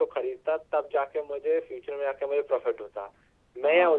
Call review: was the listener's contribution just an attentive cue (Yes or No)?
Yes